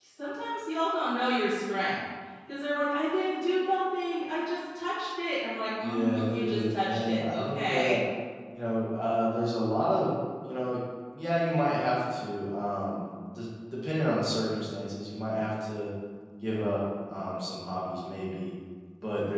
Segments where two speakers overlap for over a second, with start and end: 5.8-7.9

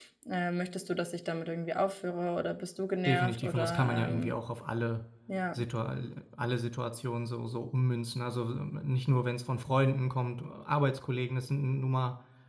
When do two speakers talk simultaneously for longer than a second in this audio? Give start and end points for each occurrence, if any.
3.0-4.3

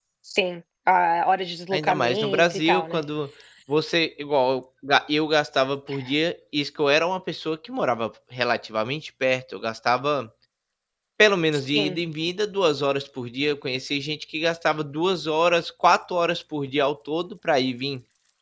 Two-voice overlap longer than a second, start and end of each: 1.7-3.0

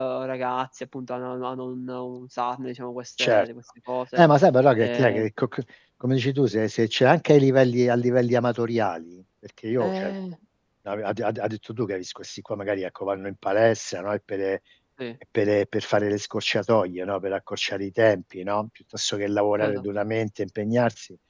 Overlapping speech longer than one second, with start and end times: none

